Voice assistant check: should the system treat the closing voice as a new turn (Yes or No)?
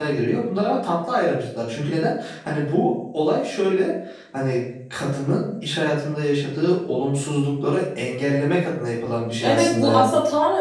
Yes